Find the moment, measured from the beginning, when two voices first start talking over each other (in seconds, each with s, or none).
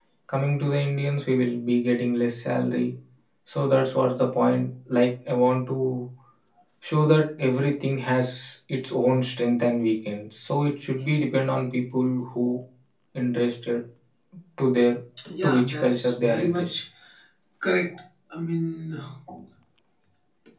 15.4 s